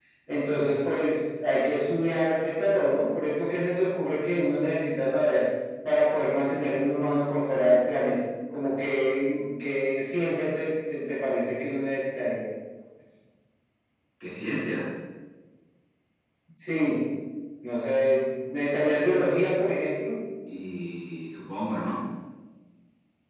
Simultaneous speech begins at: none

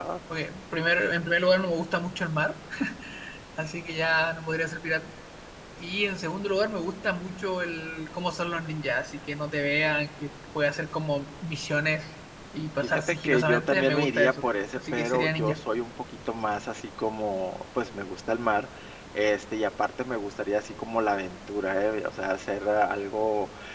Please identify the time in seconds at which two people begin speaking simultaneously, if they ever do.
12.8 s

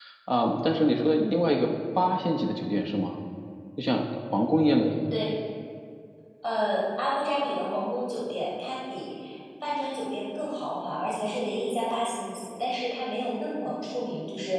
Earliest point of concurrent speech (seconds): none

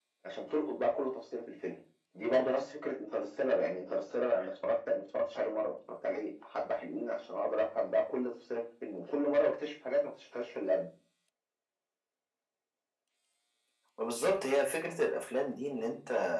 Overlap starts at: none

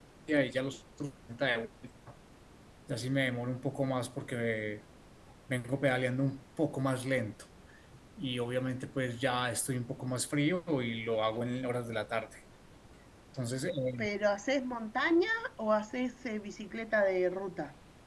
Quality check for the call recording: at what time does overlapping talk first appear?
none

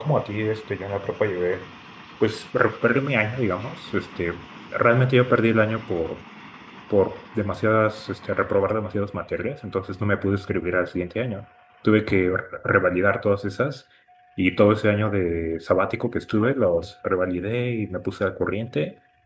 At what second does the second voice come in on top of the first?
none

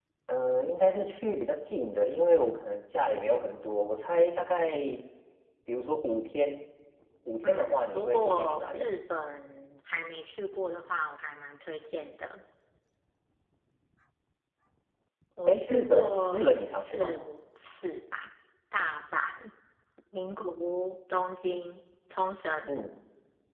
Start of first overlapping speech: 7.4 s

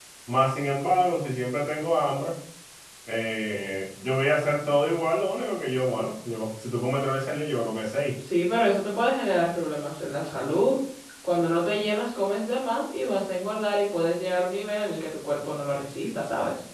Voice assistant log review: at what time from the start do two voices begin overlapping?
none

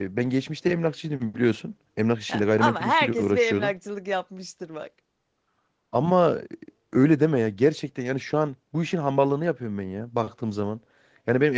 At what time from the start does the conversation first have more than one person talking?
2.3 s

